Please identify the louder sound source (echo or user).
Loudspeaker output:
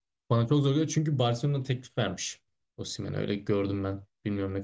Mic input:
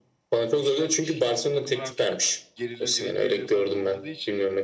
echo